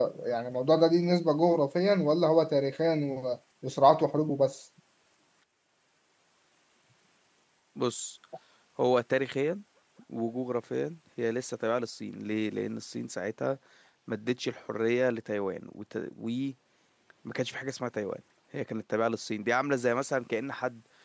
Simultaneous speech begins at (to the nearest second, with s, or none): none